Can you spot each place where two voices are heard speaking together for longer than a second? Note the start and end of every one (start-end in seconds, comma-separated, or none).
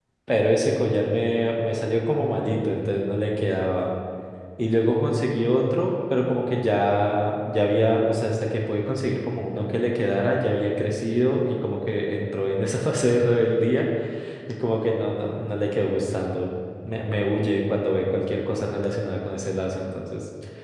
none